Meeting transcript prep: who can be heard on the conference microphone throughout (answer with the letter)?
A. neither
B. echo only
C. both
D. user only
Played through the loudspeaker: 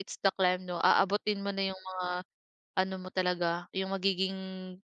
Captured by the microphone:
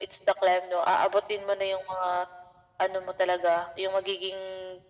B